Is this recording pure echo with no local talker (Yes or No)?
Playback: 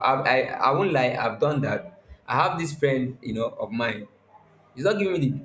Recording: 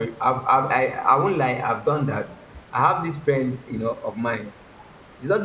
Yes